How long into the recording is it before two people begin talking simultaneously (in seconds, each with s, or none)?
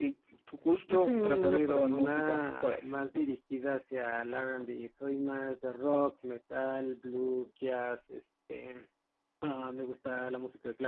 0.9 s